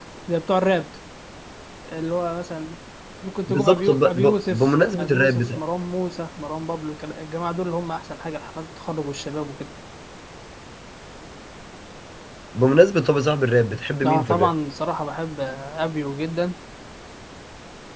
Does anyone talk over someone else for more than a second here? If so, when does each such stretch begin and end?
3.5-5.6

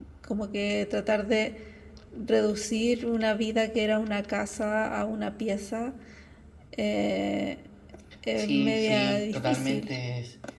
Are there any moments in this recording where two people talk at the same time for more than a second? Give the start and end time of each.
8.4-9.9

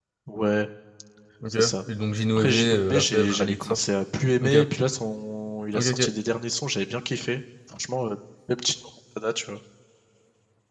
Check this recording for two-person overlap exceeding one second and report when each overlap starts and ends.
2.4-3.8

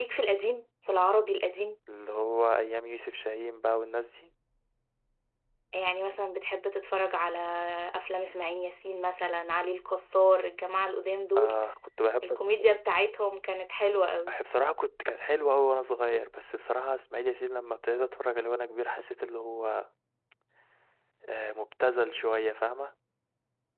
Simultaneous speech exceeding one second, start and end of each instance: none

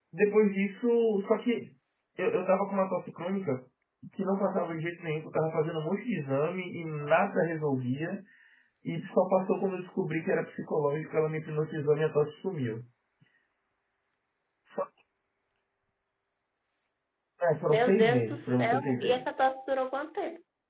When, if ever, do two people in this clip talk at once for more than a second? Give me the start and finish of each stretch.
17.7-19.2

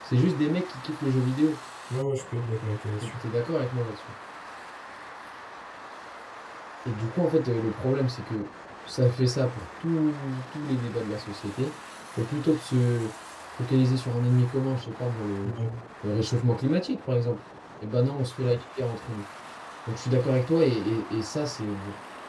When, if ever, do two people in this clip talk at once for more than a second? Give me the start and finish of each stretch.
none

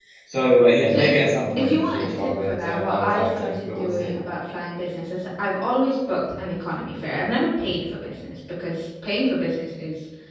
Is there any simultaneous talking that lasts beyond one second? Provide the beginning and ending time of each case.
1.6-4.1

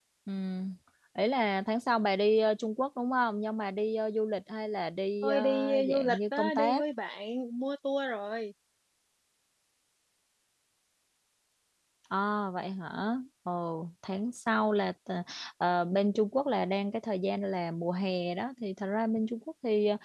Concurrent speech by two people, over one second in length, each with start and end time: 5.2-6.8

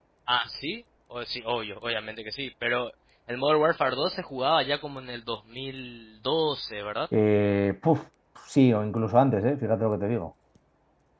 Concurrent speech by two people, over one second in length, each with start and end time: none

